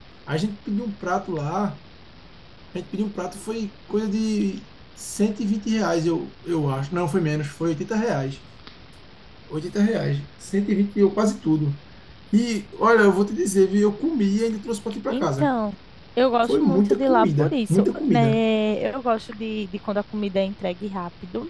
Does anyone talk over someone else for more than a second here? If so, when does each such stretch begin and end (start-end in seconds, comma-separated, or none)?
16.5-18.4